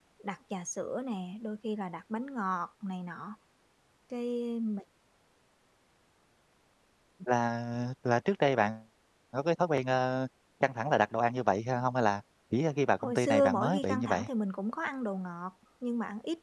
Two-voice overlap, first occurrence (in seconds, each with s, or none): 13.0 s